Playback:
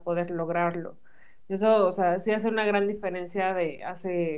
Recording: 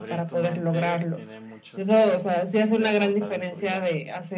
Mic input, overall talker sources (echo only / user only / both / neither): both